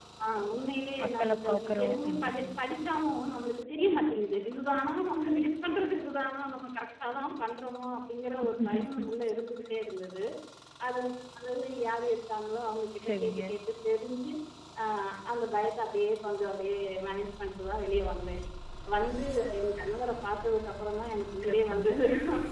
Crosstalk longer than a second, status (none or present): present